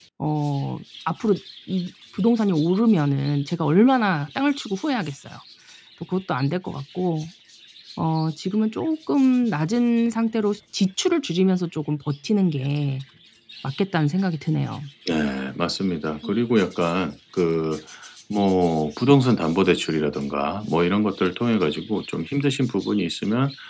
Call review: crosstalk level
none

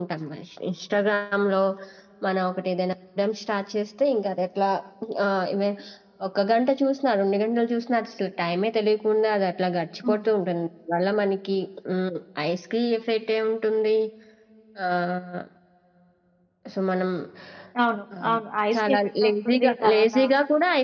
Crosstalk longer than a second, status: present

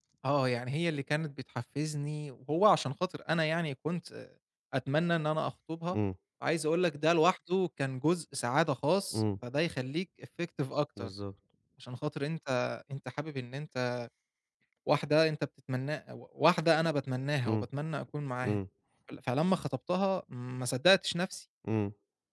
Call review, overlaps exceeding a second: none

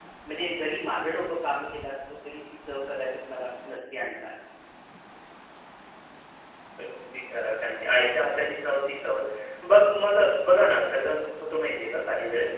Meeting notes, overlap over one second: none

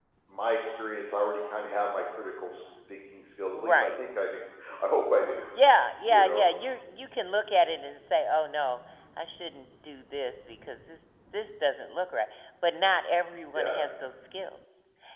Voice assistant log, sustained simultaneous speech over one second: none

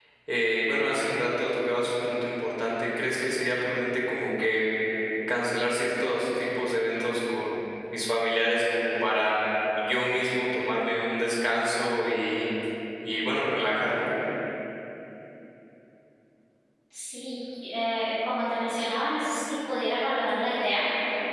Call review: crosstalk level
none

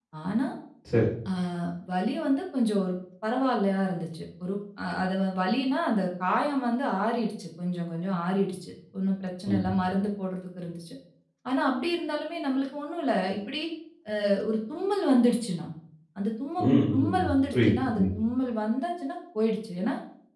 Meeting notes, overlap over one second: present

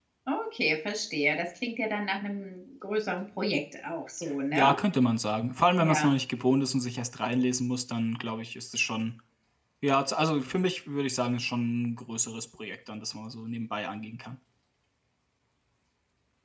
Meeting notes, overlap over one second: none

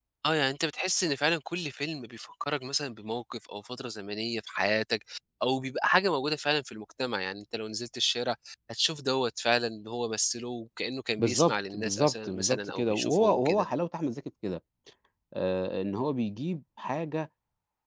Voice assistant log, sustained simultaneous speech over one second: present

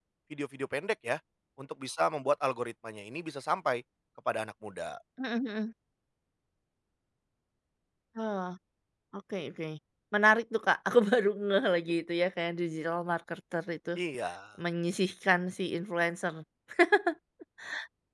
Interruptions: none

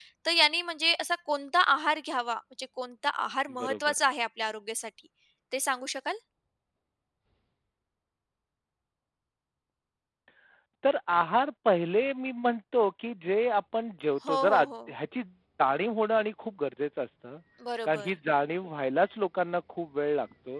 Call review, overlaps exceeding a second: none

